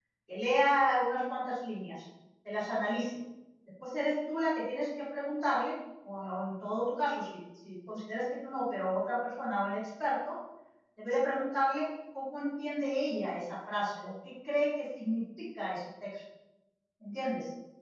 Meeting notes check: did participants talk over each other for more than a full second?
No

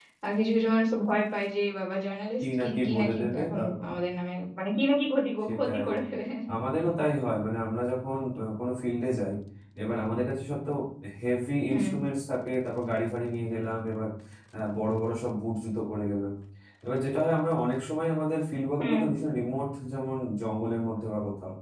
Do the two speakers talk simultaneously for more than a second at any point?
Yes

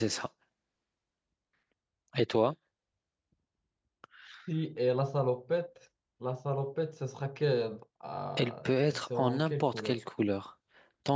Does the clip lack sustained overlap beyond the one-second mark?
No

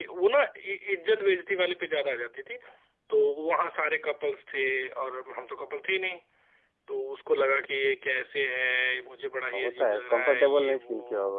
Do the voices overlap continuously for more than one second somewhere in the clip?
Yes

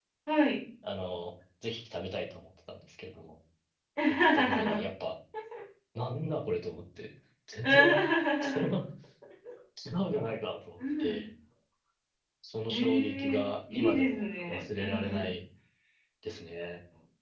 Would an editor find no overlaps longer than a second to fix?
No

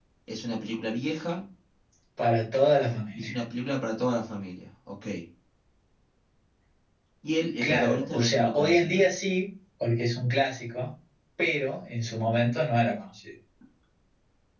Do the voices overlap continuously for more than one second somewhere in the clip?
Yes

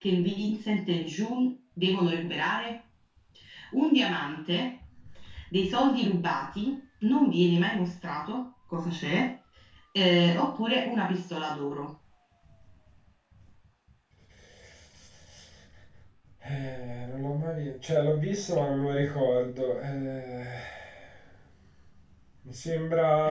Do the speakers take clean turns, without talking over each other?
Yes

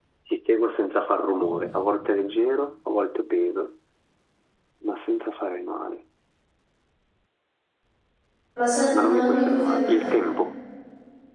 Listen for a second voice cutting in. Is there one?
Yes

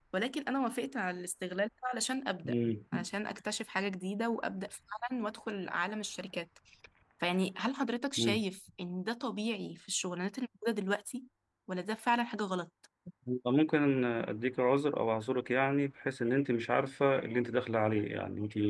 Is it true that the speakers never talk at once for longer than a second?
Yes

